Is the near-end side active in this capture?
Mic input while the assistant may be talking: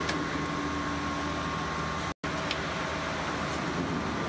No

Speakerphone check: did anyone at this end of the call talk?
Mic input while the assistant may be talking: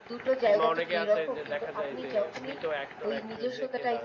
Yes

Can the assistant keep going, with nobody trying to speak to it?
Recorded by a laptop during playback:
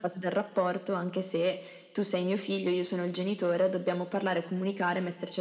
Yes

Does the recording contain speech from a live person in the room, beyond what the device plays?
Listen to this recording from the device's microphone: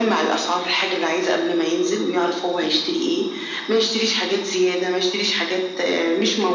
No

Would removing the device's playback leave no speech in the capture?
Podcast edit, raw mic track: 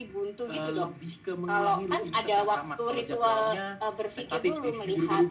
Yes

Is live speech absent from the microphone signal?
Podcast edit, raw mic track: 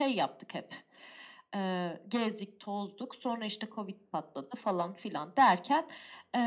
Yes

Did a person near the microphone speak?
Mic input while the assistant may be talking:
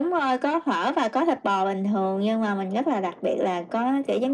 No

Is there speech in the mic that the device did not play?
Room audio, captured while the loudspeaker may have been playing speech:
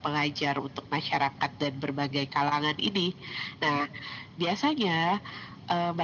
No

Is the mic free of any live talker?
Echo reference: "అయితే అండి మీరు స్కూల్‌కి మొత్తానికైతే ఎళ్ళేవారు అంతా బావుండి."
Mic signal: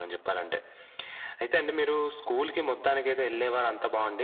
Yes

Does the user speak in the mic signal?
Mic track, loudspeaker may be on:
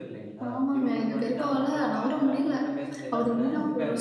Yes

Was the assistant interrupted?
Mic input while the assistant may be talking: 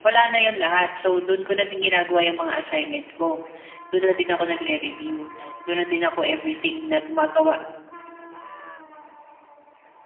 No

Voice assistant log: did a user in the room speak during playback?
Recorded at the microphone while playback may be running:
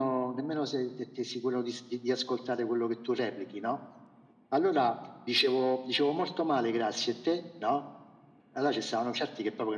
No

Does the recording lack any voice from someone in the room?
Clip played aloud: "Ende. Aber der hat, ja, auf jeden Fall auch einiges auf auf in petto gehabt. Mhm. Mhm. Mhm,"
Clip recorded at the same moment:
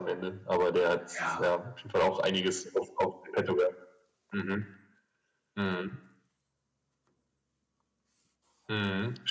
No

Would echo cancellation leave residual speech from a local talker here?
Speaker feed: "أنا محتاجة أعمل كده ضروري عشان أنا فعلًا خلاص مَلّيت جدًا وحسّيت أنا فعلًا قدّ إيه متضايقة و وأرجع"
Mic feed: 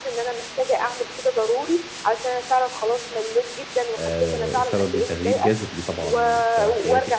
Yes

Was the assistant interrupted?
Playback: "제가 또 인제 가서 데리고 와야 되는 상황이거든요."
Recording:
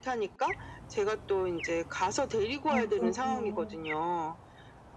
Yes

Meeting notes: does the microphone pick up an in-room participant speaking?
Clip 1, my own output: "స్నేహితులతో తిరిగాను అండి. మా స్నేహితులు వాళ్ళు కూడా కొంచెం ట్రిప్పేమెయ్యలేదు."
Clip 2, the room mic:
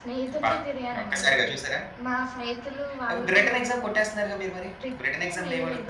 Yes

